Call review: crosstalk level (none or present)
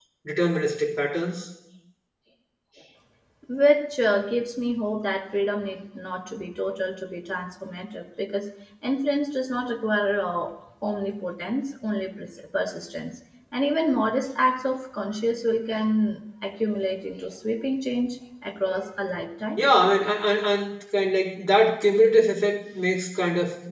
none